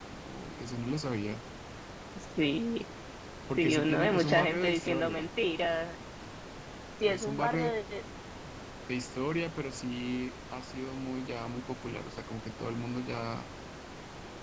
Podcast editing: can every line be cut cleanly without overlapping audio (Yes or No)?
No